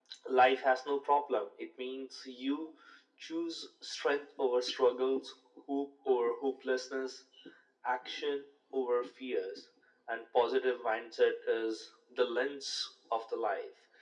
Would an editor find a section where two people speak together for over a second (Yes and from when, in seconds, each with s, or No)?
No